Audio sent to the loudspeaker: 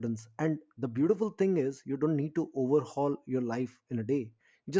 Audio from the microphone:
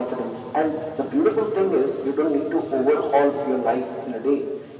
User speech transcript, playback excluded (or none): none